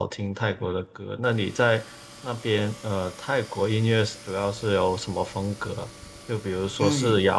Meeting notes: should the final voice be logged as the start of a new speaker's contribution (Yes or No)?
No